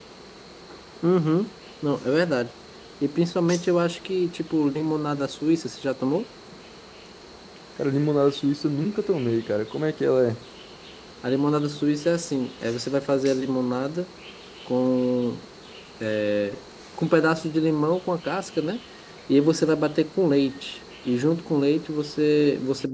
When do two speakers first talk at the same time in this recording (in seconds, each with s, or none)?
none